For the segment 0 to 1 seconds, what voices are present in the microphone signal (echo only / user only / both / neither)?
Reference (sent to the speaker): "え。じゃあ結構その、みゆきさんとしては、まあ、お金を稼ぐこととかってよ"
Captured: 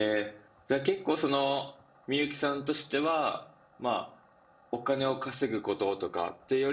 echo only